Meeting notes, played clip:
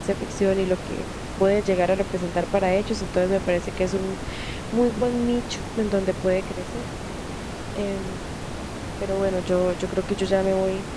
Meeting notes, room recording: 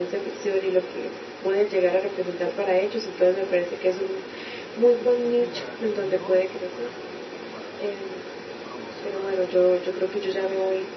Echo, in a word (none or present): present